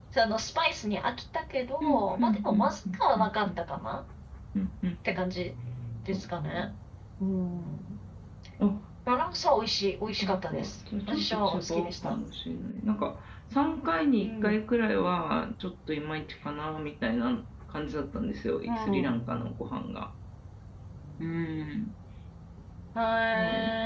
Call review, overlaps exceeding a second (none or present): present